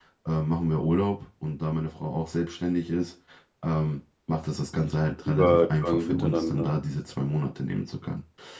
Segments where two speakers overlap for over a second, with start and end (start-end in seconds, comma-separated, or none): 5.3-6.7